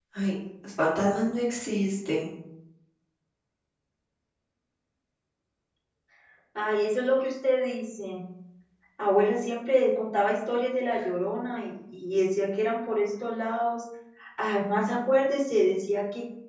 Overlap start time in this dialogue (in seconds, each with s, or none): none